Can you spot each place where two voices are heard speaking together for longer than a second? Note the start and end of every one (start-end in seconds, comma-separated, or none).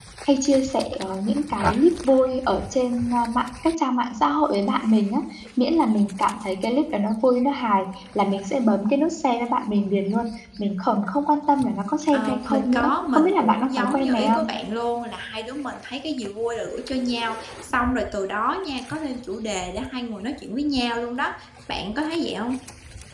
12.1-14.5